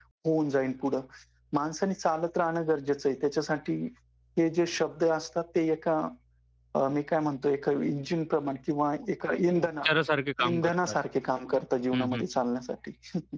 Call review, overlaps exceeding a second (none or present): none